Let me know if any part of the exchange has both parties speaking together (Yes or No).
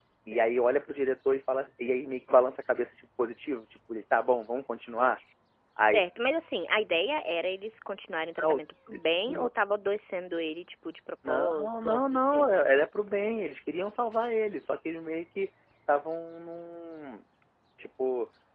Yes